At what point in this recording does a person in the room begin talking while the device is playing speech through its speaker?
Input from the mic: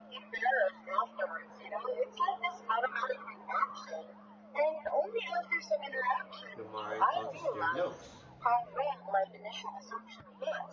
6.5 s

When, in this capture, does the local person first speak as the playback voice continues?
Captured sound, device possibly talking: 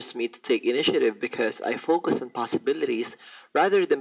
none

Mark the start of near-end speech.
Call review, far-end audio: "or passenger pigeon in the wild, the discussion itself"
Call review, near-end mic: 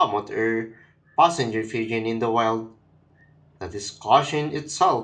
none

